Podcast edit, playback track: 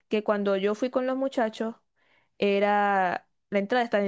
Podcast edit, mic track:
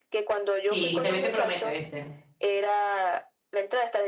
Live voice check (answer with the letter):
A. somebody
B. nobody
A